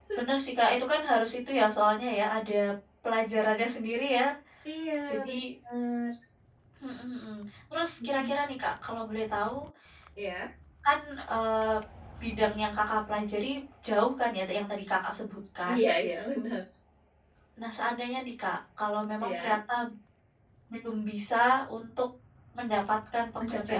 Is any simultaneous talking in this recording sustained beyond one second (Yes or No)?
No